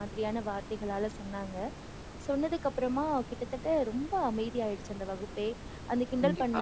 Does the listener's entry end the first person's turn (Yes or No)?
Yes